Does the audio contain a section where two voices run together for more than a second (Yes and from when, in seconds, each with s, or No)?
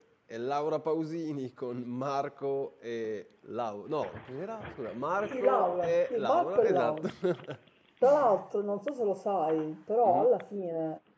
Yes, from 5.3 s